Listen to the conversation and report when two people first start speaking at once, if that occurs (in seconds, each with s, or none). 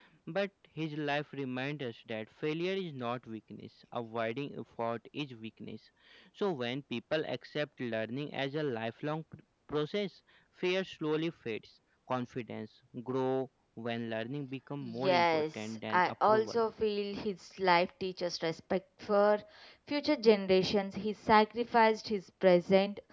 14.8 s